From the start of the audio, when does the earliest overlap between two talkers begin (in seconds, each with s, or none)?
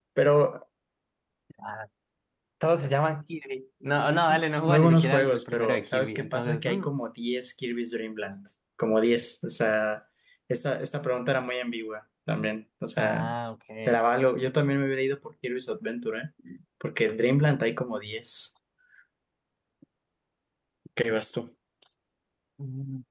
4.6 s